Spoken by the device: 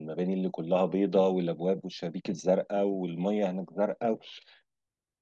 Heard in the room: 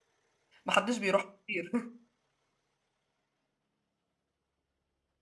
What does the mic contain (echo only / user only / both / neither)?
user only